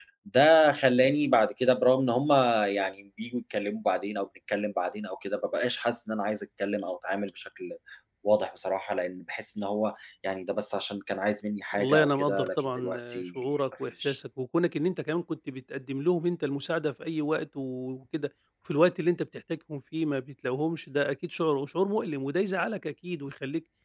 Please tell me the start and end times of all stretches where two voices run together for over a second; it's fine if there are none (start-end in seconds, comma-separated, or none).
11.7-13.2